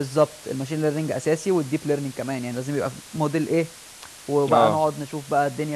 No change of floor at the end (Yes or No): Yes